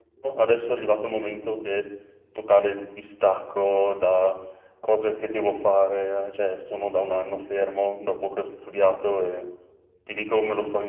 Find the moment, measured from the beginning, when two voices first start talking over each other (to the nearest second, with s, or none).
none